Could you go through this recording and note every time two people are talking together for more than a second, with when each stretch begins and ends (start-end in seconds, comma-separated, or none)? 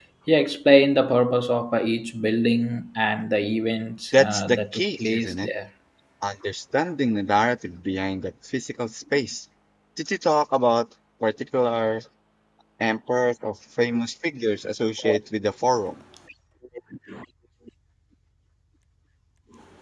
4.1-5.5